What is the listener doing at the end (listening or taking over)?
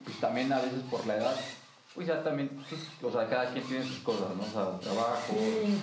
taking over